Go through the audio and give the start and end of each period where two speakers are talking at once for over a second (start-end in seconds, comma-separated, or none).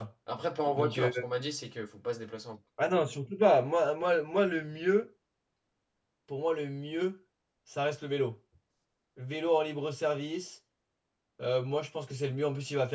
none